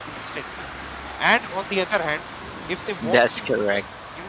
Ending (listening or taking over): listening